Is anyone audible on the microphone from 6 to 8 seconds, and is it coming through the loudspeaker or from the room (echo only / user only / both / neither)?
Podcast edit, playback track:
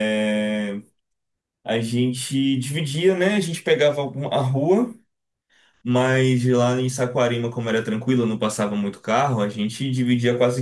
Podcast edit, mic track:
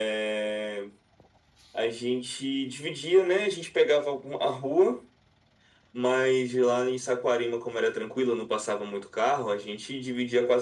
echo only